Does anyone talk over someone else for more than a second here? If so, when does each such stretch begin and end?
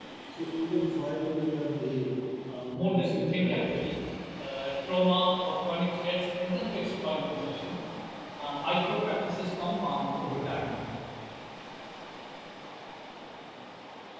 2.5-3.7

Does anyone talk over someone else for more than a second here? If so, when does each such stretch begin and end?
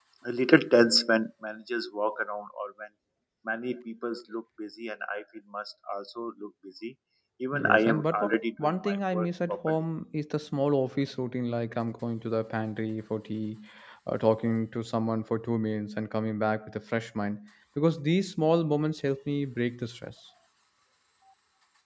7.5-9.6

